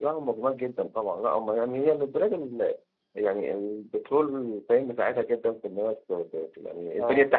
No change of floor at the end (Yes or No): Yes